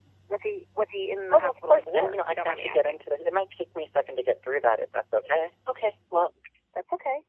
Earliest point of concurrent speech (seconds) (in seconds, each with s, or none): 1.3 s